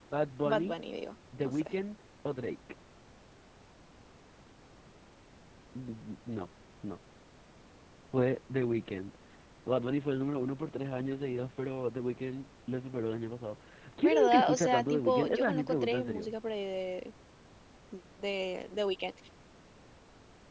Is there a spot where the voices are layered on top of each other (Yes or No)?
Yes